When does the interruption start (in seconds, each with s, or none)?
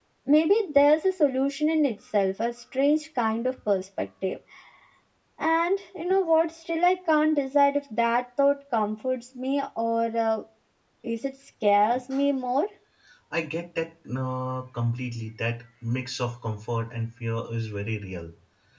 none